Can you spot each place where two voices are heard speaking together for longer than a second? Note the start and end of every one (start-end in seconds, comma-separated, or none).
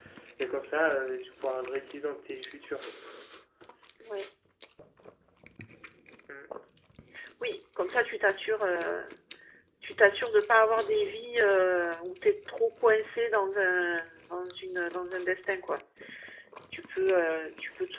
none